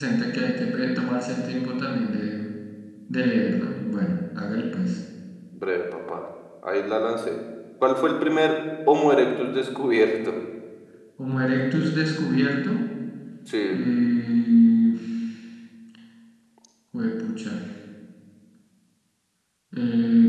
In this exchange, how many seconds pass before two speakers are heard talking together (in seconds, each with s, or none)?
none